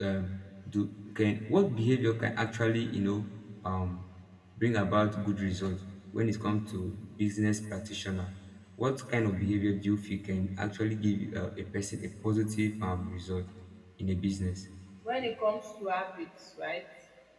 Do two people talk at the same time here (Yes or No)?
No